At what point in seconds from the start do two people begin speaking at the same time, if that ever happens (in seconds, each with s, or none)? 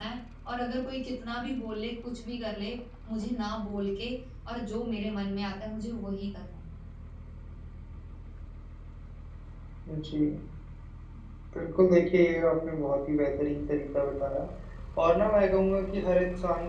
none